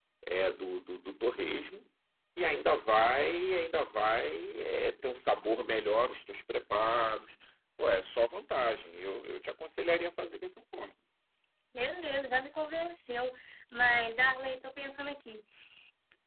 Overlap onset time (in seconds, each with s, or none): none